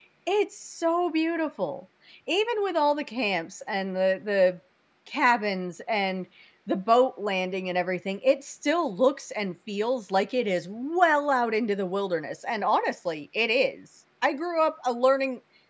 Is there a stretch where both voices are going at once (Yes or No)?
No